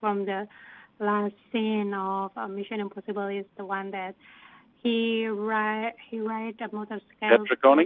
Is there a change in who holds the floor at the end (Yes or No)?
No